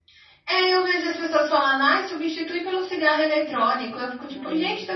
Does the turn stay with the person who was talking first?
Yes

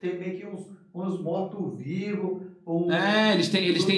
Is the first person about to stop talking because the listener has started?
Yes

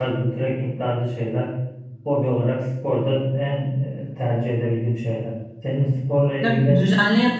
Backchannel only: No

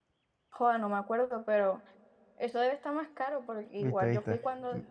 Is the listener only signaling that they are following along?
No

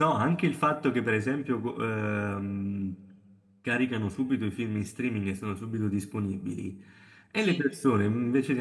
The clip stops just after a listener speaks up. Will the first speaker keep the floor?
Yes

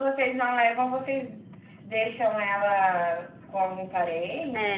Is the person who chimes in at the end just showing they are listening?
No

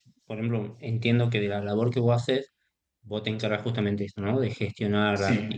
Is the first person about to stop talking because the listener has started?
No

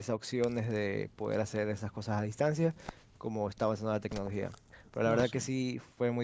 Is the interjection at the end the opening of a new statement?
No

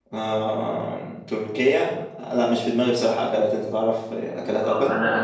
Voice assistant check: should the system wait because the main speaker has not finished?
No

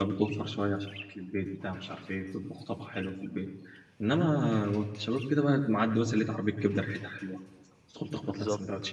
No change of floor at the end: No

